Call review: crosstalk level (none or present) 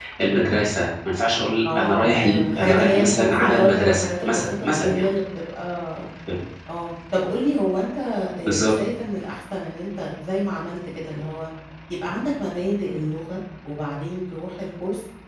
present